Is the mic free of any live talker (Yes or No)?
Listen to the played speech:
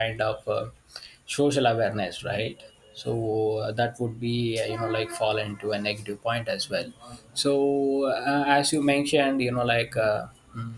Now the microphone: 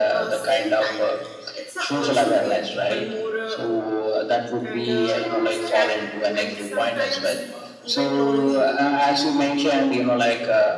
No